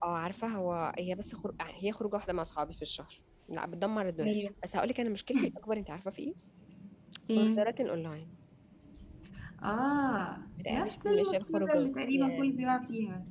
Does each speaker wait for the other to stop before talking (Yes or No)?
No